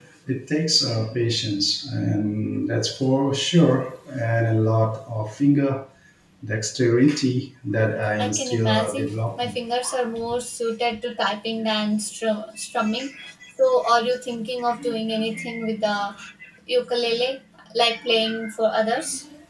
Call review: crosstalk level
present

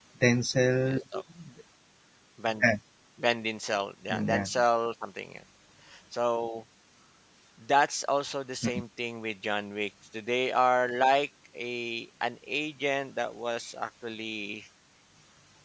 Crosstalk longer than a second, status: none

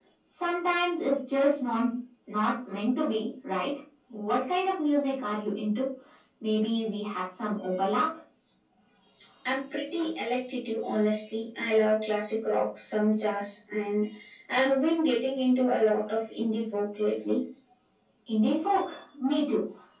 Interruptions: none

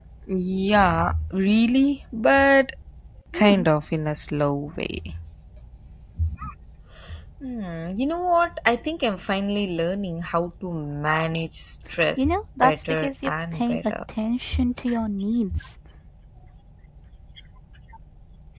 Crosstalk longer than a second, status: present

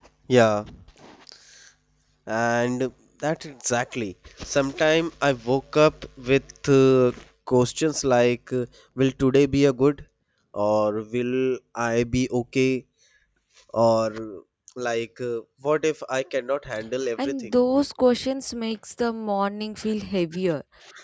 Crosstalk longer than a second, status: none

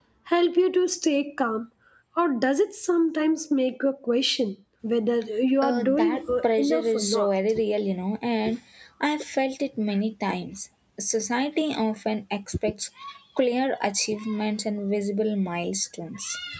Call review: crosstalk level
present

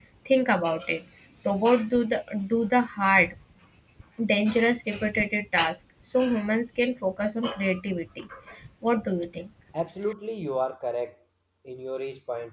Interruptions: none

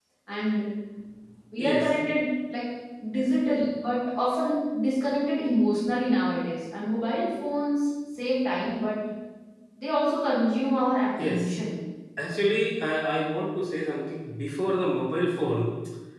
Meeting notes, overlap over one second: none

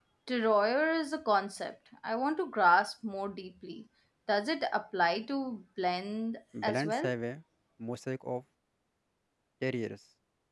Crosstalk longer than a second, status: none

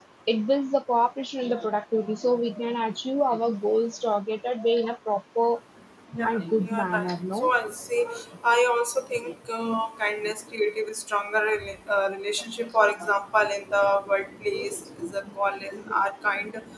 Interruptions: present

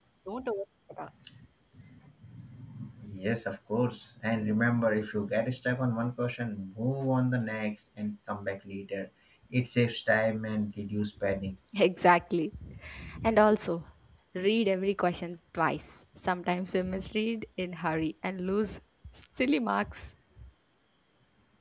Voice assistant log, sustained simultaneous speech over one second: none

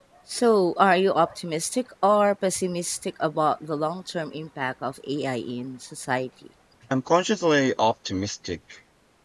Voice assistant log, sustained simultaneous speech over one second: none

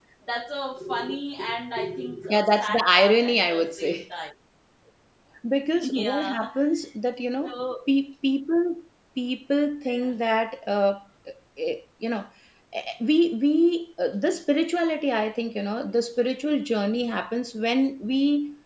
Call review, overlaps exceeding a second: present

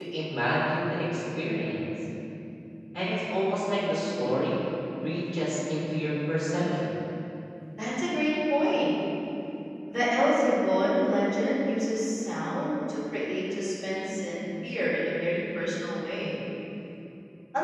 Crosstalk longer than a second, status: none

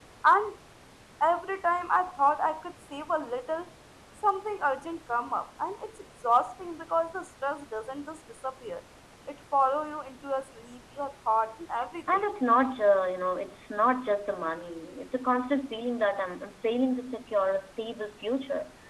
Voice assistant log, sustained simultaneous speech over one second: none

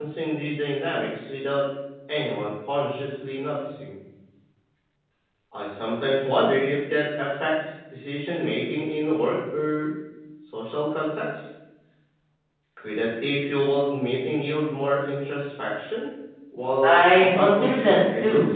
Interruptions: present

